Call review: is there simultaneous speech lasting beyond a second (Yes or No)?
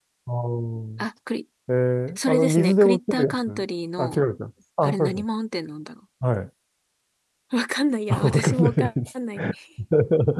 Yes